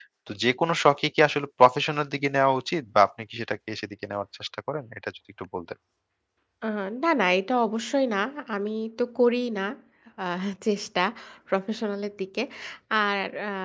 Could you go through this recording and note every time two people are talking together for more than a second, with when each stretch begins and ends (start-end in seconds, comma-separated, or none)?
none